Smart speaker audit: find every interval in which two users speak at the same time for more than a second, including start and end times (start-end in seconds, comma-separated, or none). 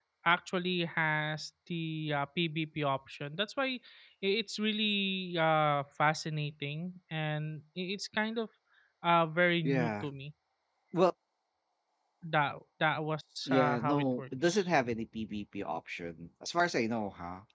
13.5-14.7